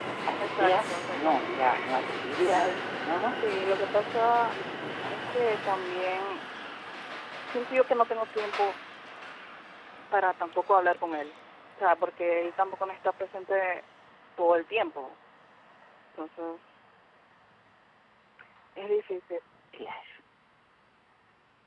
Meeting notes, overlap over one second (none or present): present